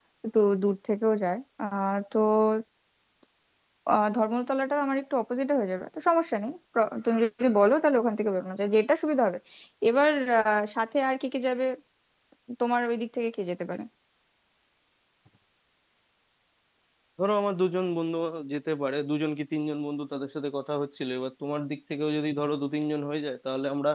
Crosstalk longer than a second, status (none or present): none